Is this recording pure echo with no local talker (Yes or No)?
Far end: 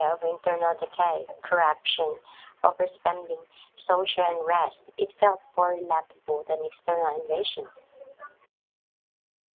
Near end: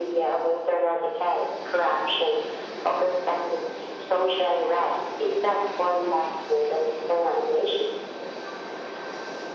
Yes